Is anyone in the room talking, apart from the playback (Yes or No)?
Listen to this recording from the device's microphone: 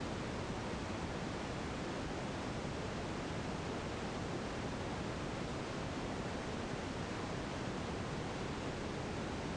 No